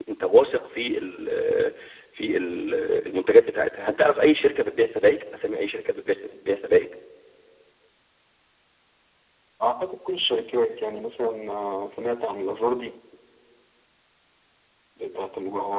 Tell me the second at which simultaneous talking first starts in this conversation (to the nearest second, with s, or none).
none